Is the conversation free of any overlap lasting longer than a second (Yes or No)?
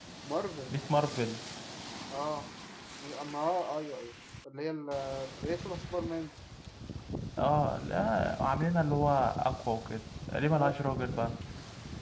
Yes